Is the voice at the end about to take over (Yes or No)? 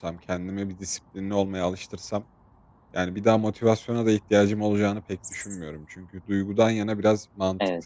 No